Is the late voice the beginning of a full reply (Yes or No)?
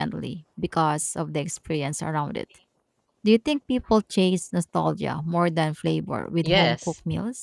Yes